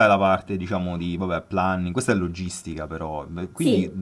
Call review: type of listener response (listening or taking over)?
listening